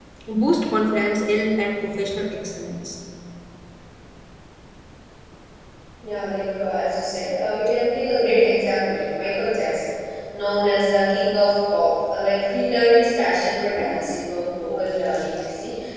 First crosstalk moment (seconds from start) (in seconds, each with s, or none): none